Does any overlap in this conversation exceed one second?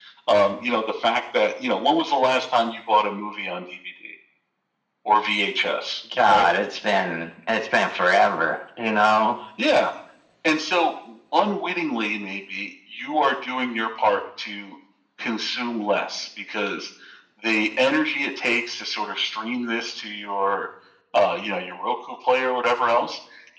No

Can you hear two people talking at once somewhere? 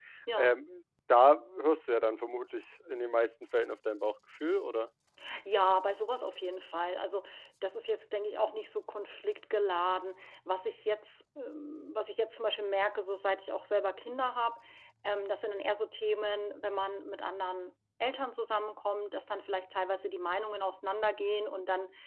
No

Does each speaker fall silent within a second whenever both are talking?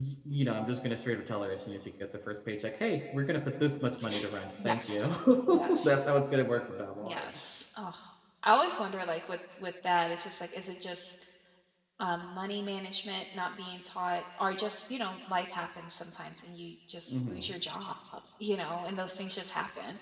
Yes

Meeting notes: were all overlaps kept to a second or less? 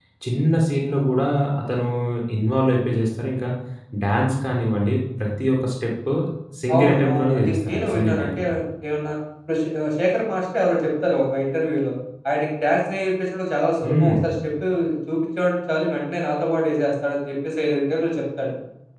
No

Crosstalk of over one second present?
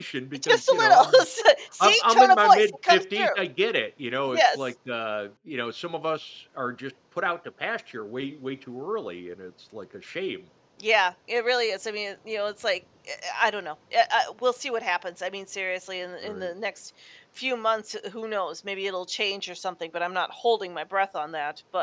Yes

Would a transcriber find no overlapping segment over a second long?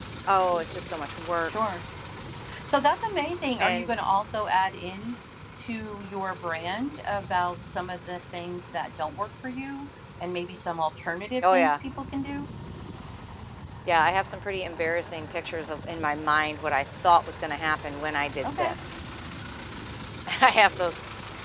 Yes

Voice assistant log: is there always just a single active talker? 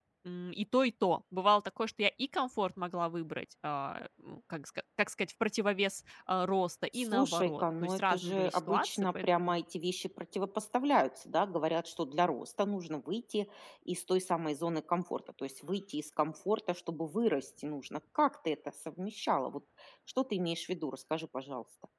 No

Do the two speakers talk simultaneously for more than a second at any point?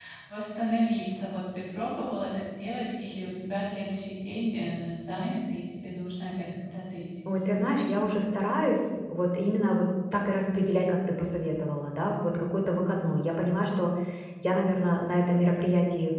No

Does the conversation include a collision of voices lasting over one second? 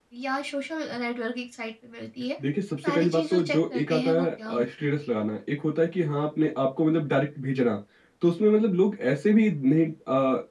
Yes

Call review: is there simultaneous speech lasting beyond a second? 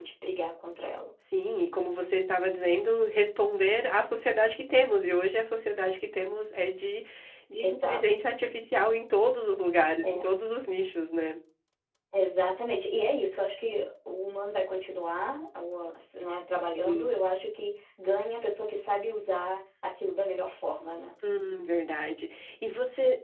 No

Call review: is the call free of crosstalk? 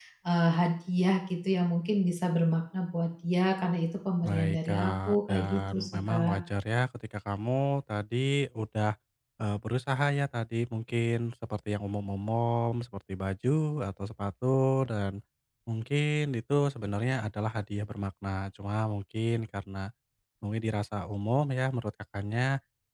No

